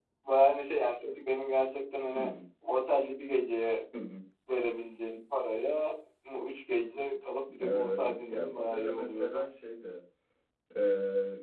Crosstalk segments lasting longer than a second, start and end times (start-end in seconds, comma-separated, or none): 7.6-9.4